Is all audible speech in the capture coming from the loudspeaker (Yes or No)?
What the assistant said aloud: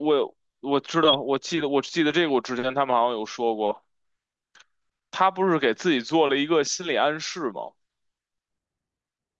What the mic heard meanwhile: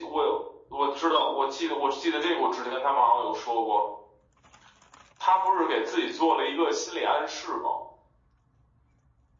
Yes